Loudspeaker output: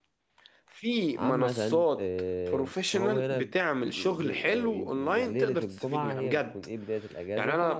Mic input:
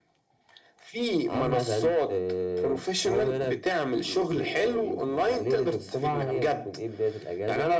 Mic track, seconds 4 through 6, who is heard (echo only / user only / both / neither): echo only